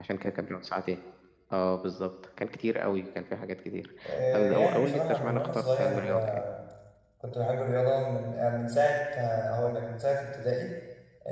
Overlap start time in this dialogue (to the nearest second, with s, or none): 4 s